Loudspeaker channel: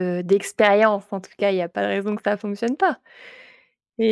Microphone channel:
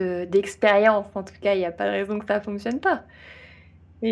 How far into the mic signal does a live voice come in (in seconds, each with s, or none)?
none